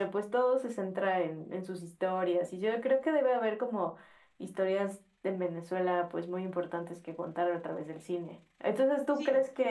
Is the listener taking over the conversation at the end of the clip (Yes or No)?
No